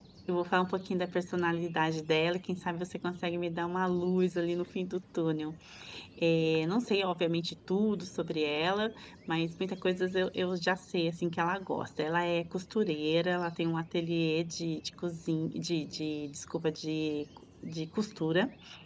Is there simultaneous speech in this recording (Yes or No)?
No